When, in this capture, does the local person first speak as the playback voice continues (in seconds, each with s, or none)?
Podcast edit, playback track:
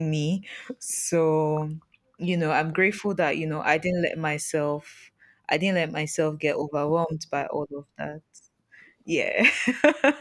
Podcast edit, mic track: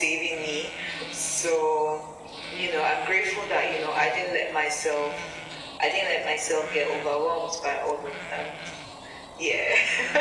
none